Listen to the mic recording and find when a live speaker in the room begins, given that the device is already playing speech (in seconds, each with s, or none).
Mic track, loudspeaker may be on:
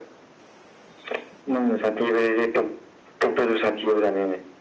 none